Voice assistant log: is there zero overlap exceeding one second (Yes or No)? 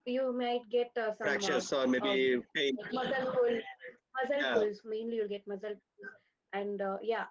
Yes